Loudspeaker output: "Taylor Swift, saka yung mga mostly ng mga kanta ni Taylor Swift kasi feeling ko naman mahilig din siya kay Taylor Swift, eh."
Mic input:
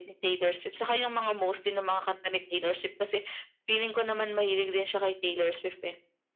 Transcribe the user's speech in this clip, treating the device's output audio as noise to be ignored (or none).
none